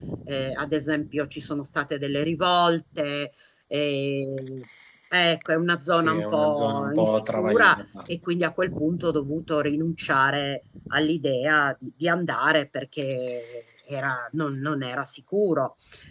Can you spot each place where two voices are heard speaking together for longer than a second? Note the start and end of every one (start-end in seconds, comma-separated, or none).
5.9-7.8